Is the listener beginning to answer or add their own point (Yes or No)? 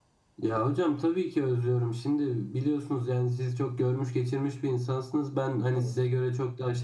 No